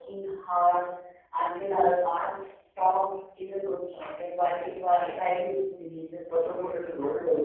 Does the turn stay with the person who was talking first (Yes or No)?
No